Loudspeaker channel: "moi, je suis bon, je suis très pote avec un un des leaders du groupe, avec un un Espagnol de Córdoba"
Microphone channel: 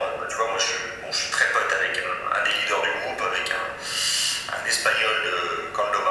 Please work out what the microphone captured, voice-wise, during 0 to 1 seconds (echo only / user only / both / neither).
echo only